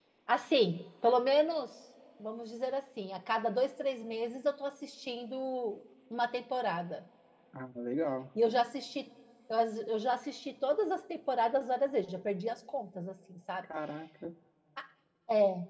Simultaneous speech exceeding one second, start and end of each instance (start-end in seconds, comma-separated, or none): none